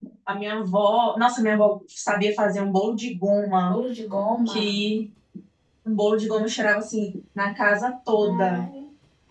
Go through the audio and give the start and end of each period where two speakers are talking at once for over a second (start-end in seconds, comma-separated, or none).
none